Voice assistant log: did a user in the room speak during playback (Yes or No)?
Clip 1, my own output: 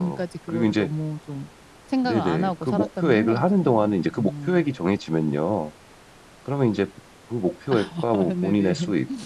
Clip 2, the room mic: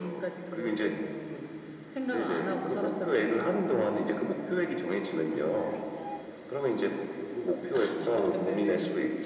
No